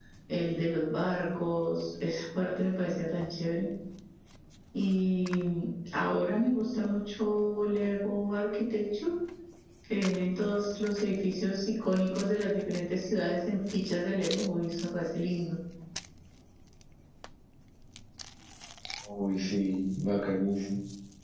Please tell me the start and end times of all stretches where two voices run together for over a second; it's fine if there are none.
none

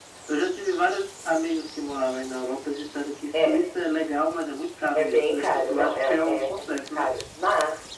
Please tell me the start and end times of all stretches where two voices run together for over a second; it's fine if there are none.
5.0-7.1

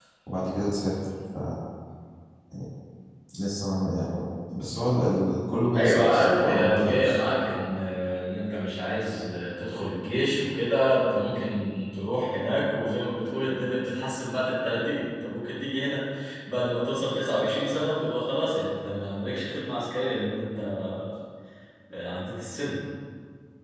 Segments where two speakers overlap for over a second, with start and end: 5.7-7.2

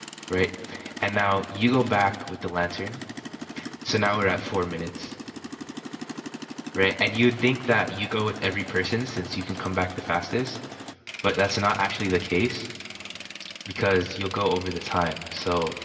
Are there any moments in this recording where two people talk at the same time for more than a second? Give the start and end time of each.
none

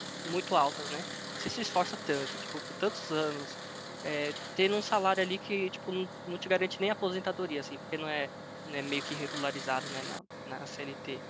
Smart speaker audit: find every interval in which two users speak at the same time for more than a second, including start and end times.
none

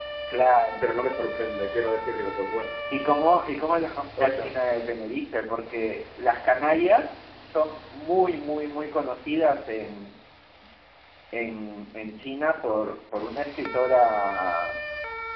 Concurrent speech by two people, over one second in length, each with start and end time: none

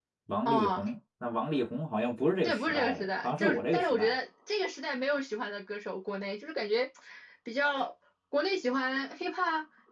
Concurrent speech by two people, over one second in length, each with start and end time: 2.4-4.2

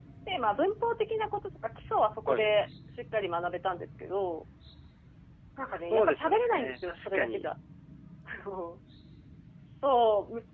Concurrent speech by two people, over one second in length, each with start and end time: 5.6-7.4

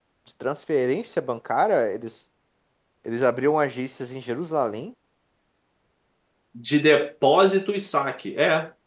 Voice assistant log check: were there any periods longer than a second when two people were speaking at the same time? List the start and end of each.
none

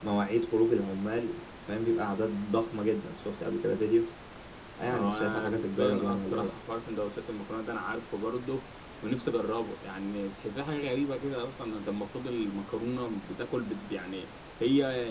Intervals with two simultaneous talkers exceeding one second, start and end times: 4.9-6.6

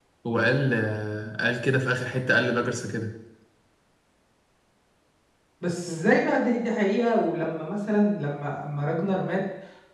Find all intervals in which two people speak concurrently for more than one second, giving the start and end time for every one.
none

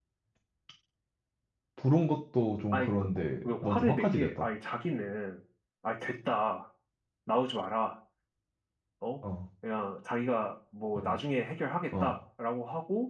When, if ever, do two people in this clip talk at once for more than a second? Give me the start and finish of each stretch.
2.7-4.5

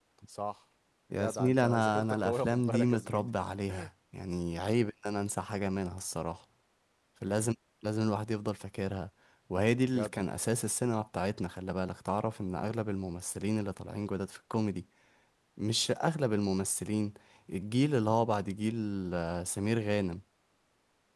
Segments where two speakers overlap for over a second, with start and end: 1.1-3.3

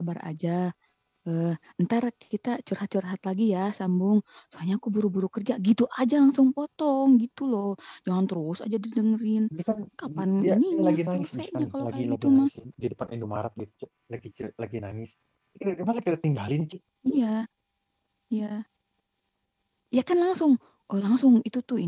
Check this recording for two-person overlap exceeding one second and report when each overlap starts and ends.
10.2-12.5

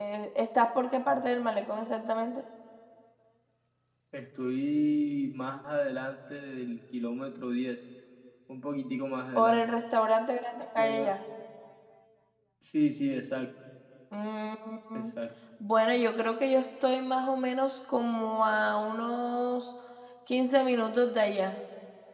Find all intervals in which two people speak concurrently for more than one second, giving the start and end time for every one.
none

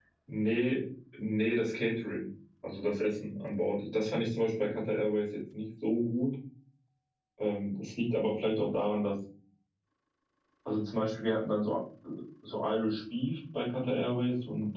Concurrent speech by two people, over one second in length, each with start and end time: none

